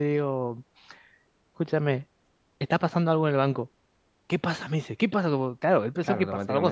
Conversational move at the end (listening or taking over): taking over